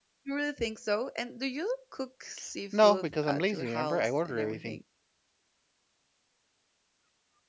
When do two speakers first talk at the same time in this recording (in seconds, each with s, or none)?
2.7 s